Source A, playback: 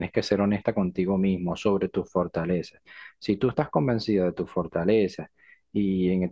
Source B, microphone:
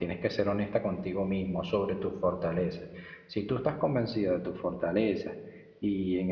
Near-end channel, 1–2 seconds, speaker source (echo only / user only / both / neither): echo only